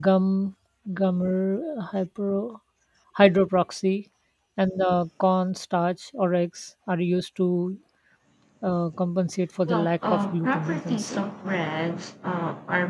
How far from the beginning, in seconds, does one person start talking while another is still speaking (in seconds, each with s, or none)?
9.6 s